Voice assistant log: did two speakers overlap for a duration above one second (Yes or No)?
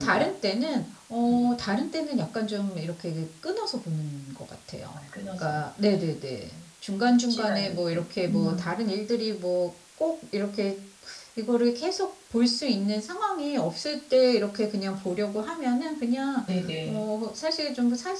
Yes